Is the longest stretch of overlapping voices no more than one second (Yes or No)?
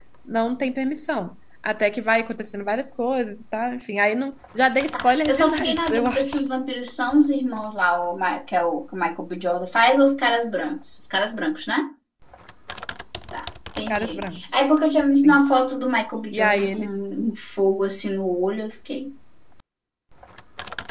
No